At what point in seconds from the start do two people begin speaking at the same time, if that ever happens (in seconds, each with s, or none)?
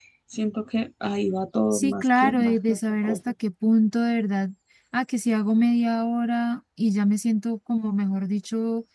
1.7 s